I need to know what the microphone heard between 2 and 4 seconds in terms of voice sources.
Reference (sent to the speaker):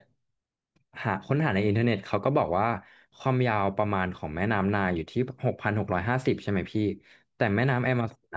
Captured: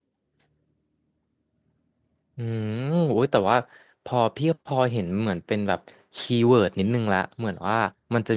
user only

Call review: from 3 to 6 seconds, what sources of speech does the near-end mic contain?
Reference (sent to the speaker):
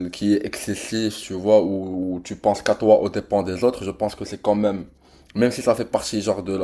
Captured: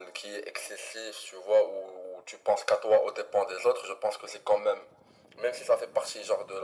echo only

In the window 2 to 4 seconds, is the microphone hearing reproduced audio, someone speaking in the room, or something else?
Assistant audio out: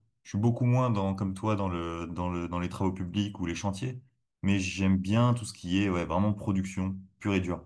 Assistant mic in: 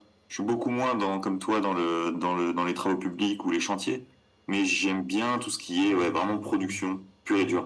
echo only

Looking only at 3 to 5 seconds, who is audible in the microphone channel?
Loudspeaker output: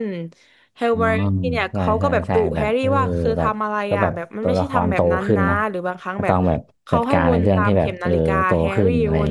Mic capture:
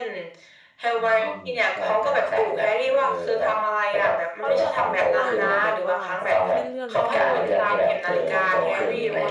both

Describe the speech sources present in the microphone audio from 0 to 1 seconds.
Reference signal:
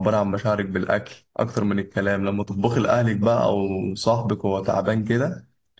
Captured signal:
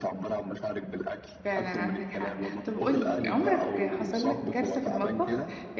echo only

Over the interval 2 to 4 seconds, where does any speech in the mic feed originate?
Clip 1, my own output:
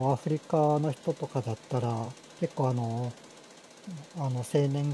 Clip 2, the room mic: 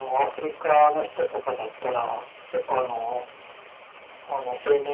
echo only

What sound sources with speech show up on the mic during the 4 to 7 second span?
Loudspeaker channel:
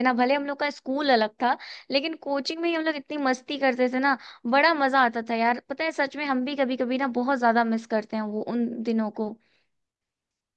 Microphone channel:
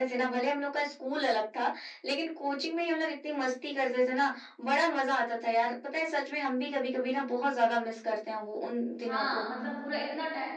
echo only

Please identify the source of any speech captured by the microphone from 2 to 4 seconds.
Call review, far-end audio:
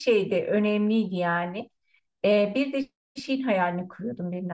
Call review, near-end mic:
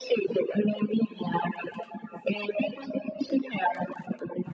echo only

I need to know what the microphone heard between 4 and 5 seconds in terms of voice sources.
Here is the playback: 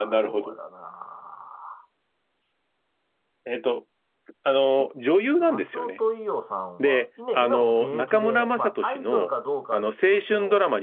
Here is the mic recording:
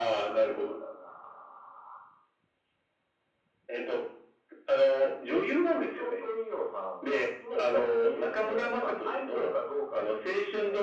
echo only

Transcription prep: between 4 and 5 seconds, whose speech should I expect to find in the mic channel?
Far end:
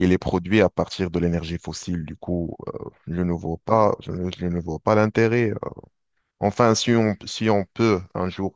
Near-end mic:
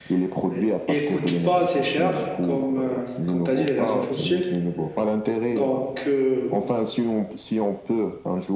both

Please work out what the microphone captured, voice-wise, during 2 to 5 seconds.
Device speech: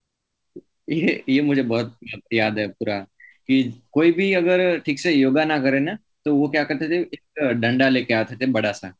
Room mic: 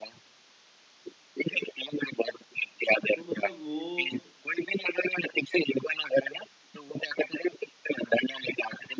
both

